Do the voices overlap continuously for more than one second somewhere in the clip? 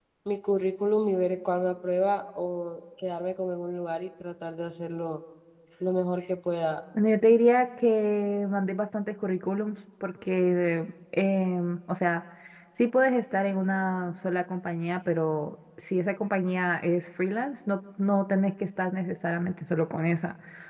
No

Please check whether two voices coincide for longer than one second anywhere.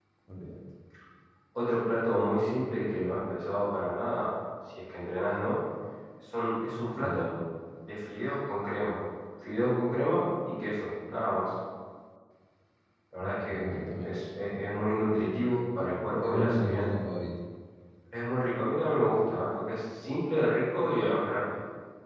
Yes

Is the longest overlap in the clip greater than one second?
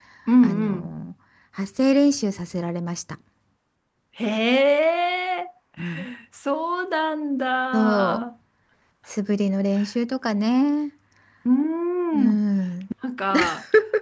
No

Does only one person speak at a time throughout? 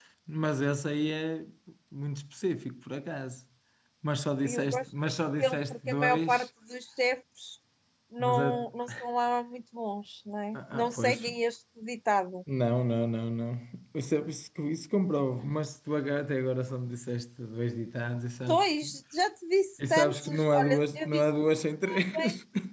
No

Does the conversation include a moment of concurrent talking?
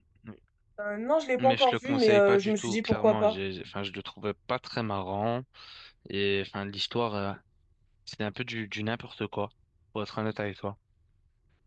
Yes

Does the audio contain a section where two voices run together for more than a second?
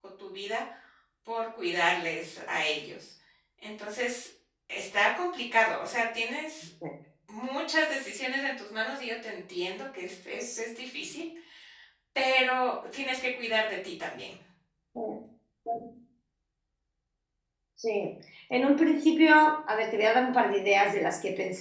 No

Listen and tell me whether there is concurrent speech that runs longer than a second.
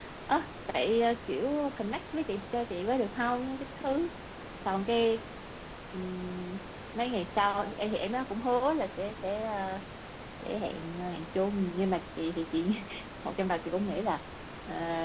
No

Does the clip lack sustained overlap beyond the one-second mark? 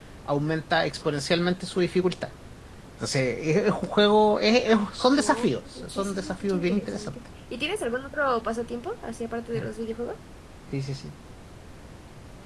No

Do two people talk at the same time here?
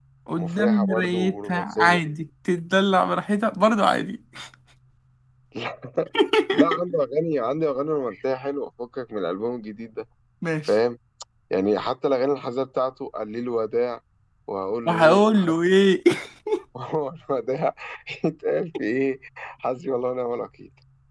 Yes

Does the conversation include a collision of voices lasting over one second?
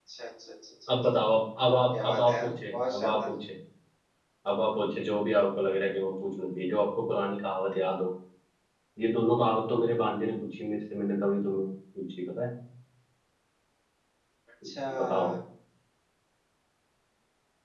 Yes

